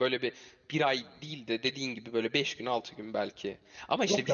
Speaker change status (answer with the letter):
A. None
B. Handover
B